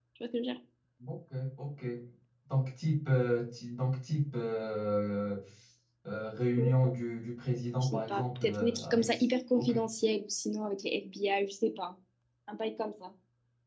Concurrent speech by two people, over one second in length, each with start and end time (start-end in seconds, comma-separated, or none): 7.8-9.1